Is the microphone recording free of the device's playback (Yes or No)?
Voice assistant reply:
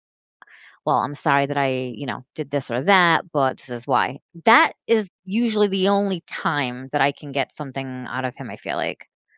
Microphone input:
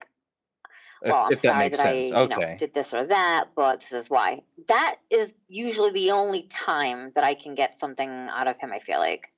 No